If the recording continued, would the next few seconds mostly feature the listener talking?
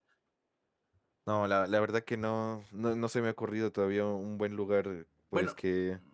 Yes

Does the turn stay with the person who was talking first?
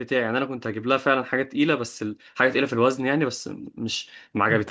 No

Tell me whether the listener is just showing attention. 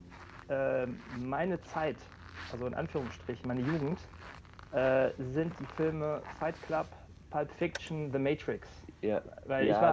No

